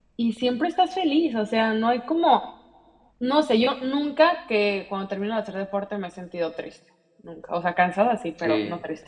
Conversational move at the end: taking over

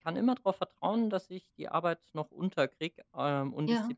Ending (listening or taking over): listening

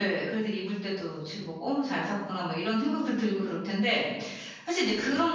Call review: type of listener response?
listening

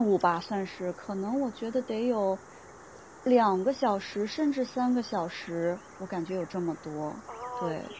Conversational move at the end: taking over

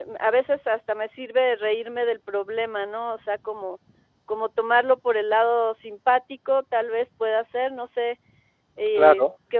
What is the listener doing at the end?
taking over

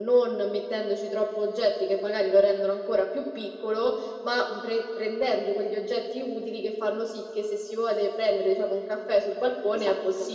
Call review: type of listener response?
taking over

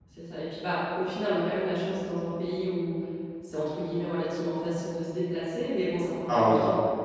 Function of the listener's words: listening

